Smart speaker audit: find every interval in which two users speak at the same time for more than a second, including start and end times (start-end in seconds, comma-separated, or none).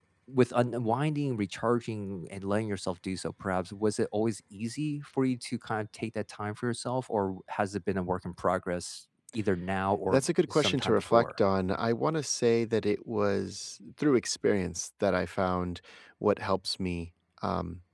10.1-11.4